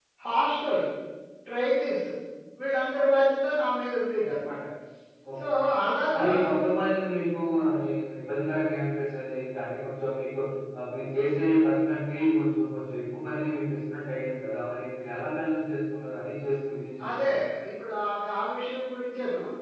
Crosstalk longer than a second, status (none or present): none